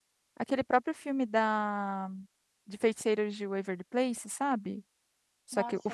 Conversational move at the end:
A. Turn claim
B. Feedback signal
A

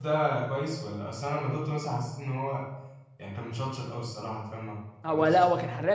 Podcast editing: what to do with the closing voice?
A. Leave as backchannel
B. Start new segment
B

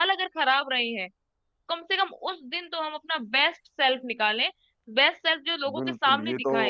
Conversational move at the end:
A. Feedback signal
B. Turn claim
B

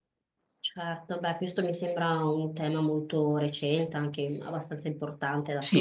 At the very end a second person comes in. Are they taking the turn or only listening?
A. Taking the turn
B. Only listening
A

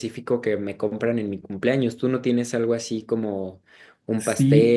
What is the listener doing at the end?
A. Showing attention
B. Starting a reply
B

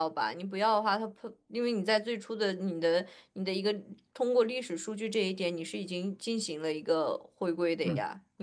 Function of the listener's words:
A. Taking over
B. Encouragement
A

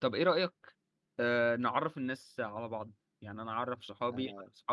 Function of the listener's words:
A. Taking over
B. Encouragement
B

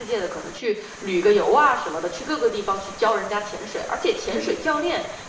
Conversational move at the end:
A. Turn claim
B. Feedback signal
B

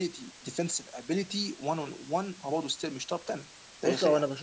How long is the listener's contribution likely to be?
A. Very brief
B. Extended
B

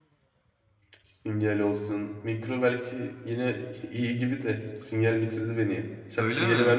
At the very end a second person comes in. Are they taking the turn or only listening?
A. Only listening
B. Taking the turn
B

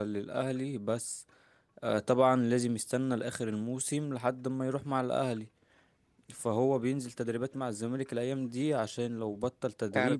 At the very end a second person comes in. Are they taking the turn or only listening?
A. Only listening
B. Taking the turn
B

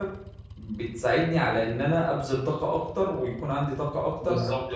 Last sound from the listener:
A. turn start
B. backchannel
B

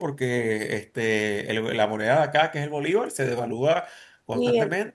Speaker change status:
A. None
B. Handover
B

